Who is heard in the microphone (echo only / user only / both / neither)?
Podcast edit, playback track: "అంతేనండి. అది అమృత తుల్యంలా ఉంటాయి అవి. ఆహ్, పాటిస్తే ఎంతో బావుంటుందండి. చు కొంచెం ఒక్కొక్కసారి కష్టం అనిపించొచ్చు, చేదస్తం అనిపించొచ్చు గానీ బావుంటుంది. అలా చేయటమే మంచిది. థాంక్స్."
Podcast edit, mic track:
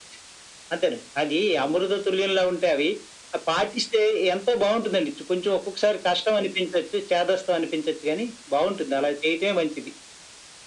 echo only